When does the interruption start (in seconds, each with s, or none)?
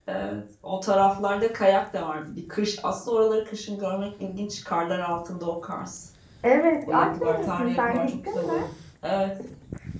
6.9 s